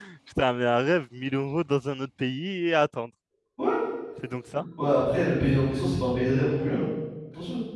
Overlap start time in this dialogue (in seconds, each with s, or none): none